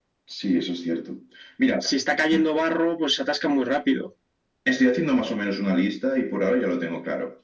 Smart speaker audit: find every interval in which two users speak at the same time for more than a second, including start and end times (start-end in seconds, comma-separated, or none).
none